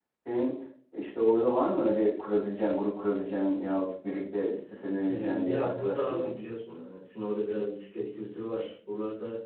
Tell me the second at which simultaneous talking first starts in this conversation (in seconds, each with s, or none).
5.0 s